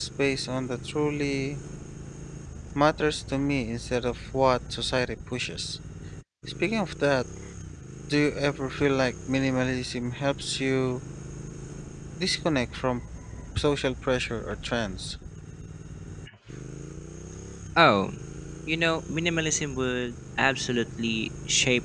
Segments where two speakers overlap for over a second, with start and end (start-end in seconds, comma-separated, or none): none